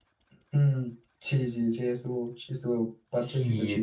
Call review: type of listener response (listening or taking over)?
taking over